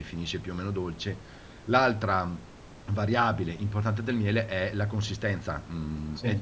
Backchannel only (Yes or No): Yes